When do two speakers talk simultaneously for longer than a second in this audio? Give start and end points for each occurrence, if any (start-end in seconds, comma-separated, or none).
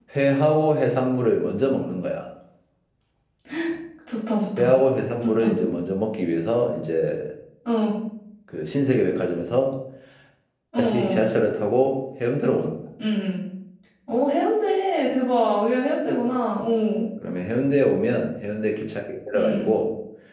none